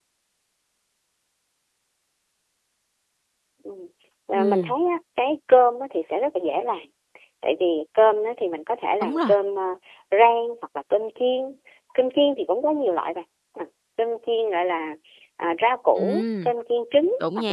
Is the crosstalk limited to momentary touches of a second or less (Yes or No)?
Yes